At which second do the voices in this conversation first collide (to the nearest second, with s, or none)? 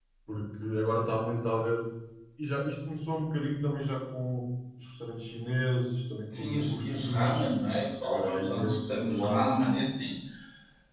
6 s